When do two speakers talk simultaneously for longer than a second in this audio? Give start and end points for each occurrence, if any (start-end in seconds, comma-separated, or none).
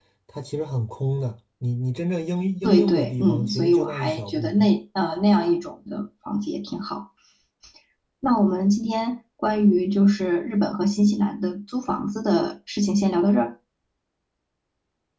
2.6-4.7